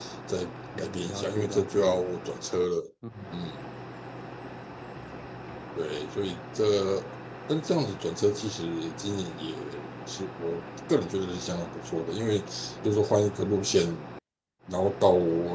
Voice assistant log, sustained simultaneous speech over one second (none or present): present